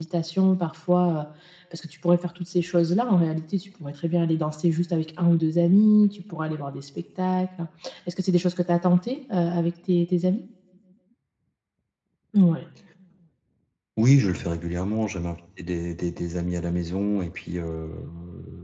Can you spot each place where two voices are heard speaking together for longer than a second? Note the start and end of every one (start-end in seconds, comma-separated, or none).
none